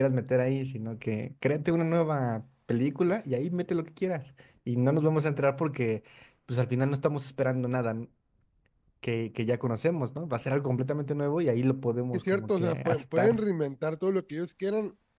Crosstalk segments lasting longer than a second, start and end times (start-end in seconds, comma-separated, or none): 12.1-13.4